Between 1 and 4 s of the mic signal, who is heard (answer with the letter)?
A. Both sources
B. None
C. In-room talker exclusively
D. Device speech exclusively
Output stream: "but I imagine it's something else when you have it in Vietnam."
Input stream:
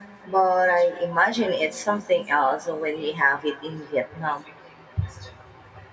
D